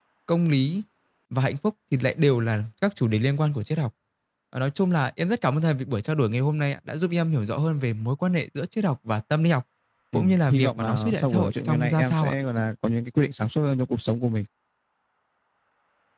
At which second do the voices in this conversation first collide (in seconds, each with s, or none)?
10.1 s